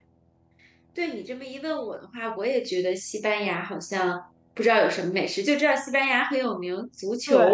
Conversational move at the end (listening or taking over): taking over